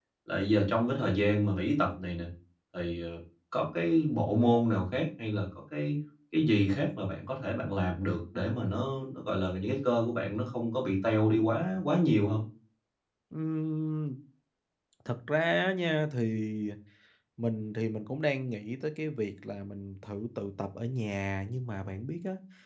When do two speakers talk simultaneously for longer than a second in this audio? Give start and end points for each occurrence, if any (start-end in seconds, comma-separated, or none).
none